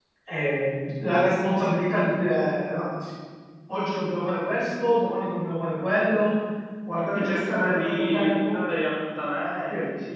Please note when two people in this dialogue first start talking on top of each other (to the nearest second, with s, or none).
7 s